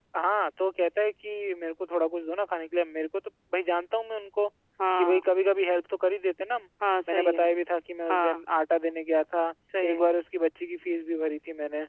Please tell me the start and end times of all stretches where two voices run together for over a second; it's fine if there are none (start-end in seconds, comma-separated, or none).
none